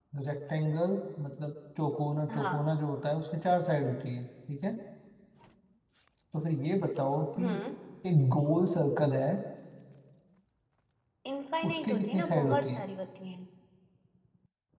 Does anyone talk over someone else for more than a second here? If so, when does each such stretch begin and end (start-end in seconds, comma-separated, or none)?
11.6-12.8